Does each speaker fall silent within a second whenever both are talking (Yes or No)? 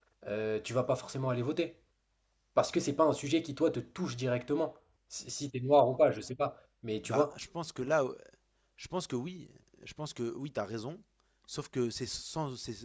Yes